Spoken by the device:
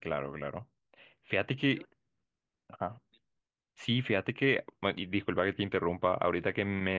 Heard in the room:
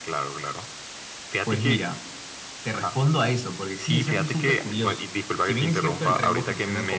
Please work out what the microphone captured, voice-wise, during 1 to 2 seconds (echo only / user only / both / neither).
both